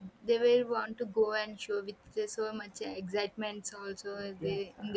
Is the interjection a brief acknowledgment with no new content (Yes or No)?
No